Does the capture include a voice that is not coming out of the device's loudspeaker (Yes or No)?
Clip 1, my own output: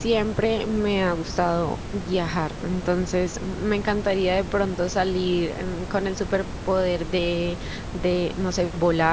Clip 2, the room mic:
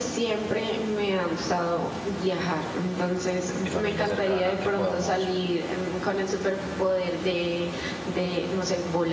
Yes